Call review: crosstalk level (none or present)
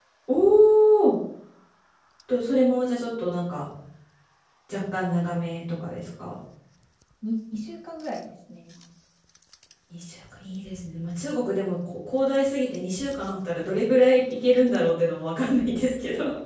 none